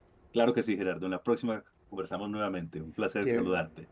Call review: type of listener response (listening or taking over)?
taking over